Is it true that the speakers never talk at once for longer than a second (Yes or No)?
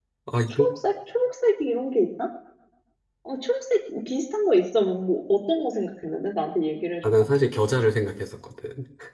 Yes